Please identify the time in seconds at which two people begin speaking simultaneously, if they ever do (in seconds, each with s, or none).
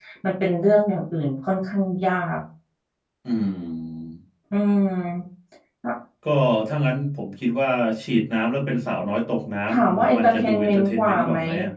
9.7 s